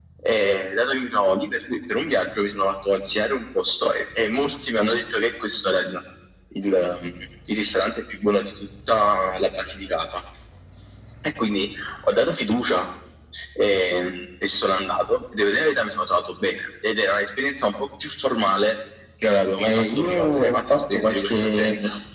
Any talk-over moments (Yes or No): Yes